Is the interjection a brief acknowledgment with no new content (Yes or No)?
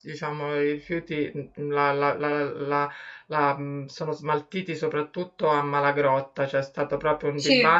Yes